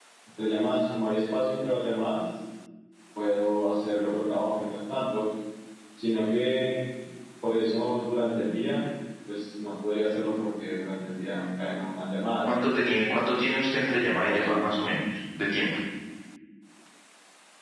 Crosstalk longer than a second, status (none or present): none